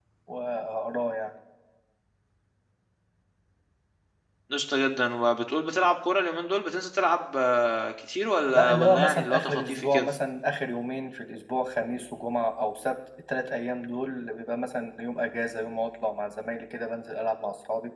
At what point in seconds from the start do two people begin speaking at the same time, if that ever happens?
8.5 s

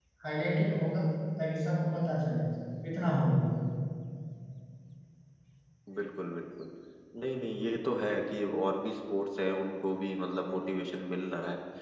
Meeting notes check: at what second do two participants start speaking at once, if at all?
none

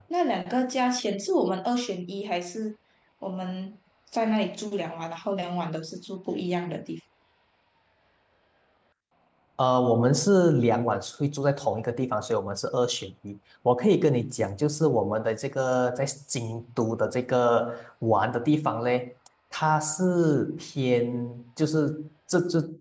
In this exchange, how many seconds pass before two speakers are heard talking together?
none

